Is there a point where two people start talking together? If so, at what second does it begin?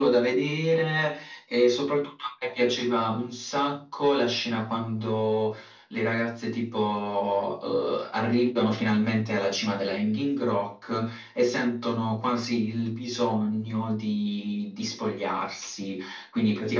none

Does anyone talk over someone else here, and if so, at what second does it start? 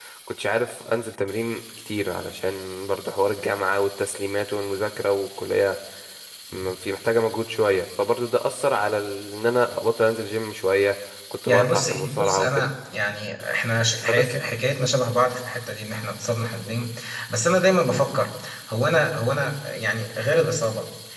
11.4 s

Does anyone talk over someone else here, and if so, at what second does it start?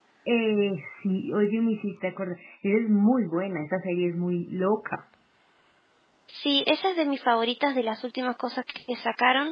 none

